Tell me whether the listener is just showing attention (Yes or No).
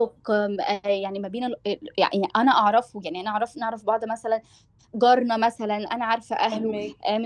Yes